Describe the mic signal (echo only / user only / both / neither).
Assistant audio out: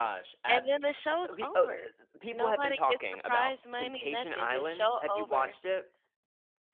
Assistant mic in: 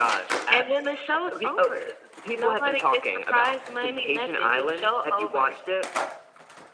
echo only